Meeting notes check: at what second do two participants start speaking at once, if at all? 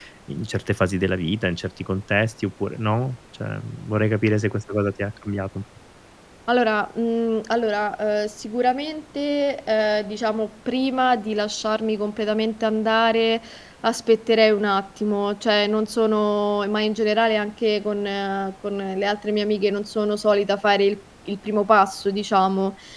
none

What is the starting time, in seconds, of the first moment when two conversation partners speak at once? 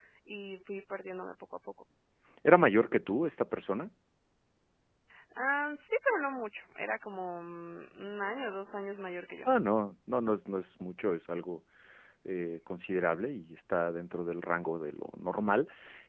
none

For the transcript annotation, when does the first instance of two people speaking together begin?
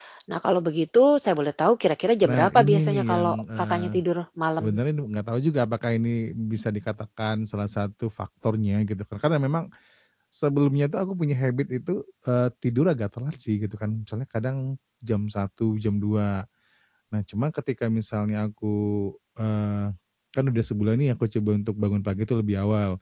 2.2 s

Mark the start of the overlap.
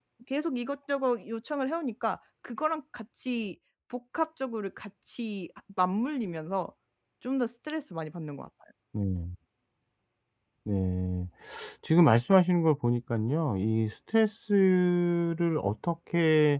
none

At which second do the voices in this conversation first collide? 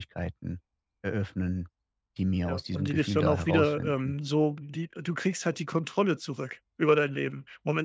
2.4 s

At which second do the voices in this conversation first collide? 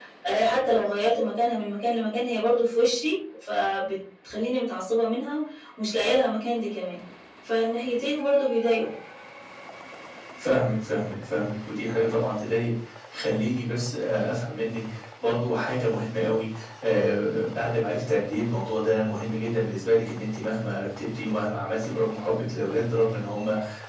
none

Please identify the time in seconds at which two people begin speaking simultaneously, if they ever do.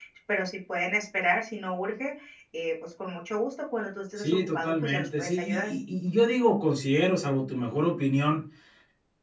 4.2 s

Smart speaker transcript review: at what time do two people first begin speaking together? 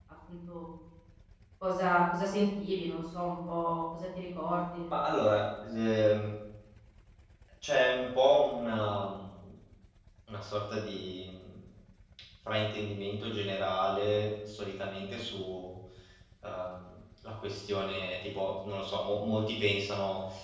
none

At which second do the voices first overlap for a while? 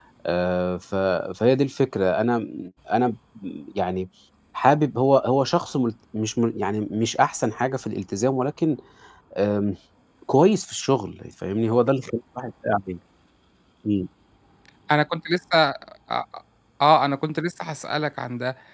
none

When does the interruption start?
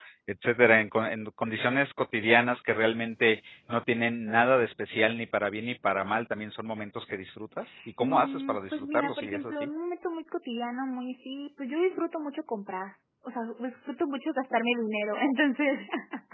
8.0 s

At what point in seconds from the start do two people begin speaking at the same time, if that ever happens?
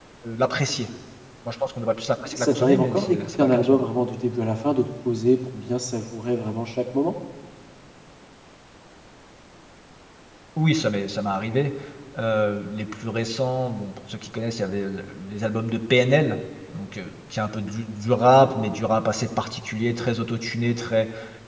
2.3 s

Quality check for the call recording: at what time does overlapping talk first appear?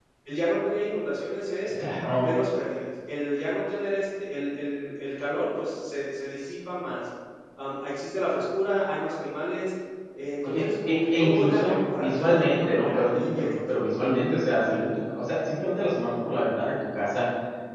10.4 s

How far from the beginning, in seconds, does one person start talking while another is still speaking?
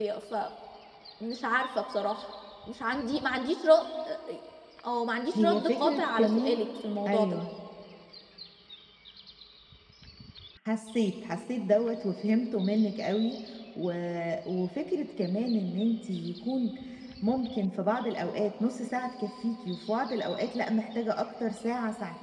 5.4 s

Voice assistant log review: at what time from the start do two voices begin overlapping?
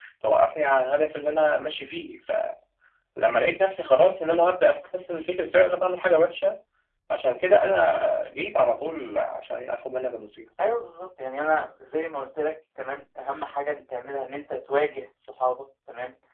none

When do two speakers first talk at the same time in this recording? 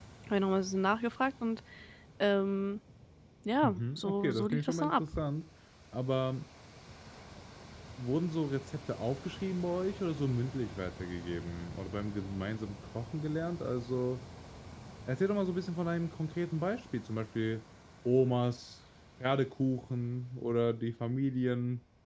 3.6 s

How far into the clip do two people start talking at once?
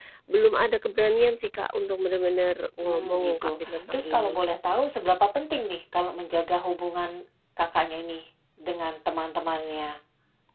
2.8 s

